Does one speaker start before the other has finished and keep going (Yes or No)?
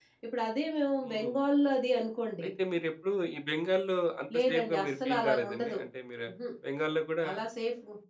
Yes